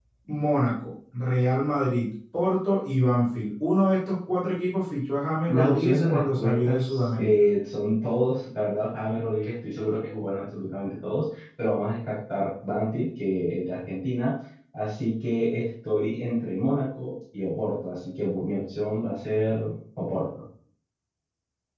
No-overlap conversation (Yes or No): No